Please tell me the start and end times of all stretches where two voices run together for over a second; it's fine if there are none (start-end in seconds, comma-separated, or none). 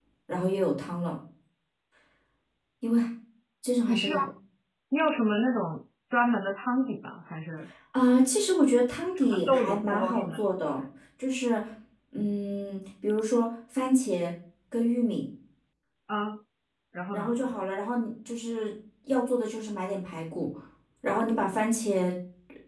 9.2-10.4